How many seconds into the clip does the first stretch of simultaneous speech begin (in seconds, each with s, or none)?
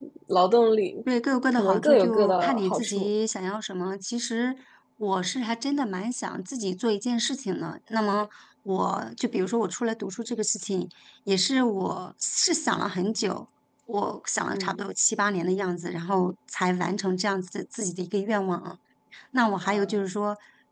1.5 s